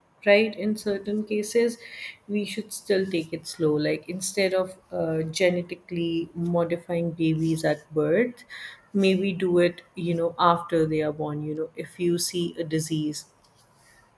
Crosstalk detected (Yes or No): No